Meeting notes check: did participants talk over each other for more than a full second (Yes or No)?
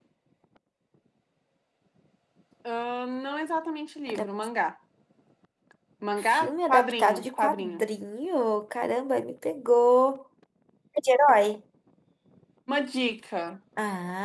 Yes